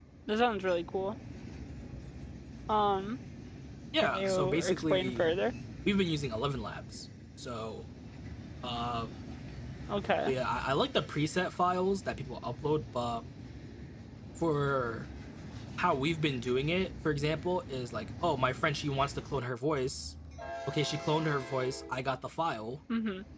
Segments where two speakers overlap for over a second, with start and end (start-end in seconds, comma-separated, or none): 4.0-5.2